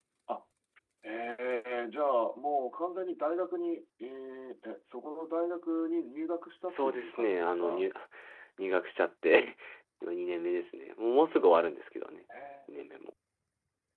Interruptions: present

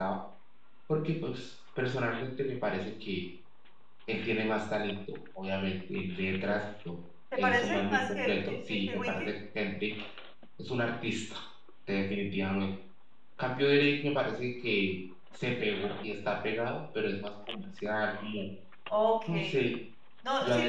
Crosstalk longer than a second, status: present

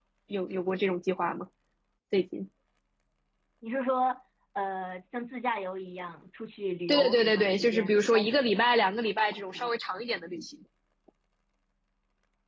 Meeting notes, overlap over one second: present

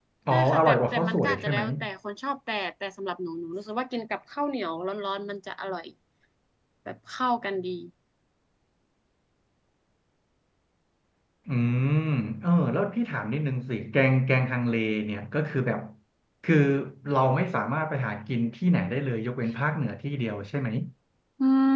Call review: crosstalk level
present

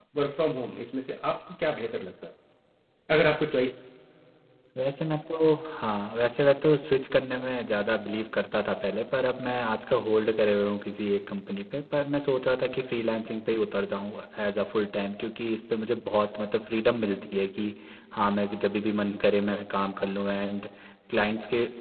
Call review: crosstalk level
none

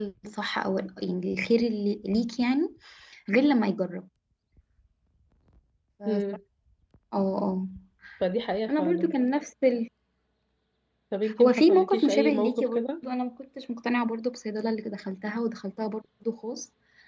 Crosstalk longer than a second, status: present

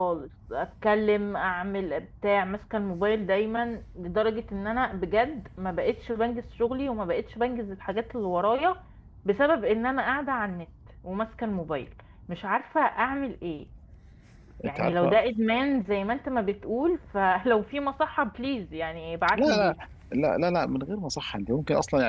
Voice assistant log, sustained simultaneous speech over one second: none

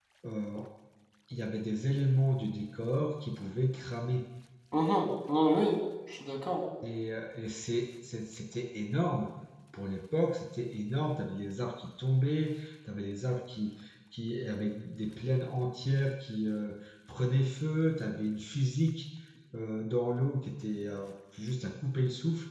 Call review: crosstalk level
none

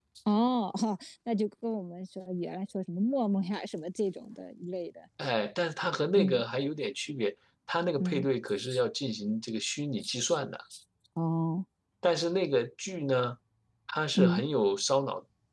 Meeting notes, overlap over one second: none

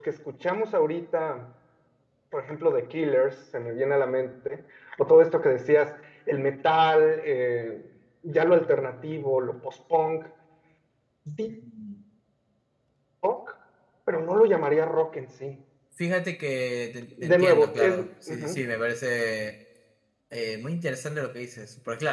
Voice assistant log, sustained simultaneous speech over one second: present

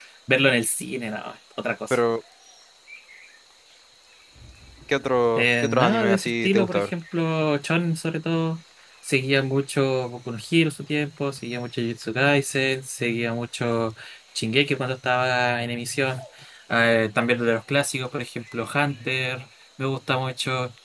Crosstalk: present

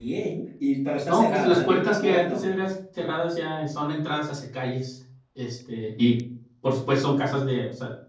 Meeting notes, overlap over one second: present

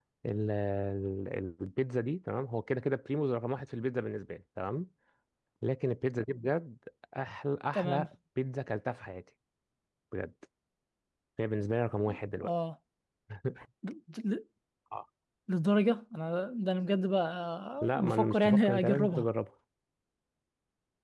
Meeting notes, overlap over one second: present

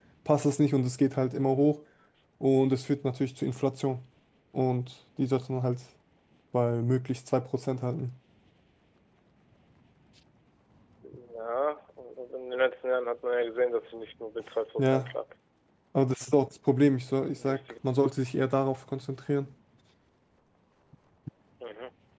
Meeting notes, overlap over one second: none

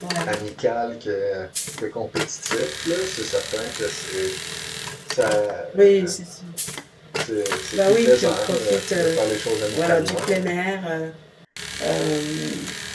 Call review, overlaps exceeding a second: present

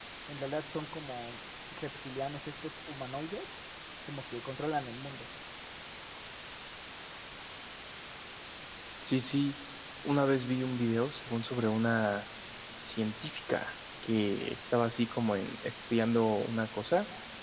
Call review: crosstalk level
none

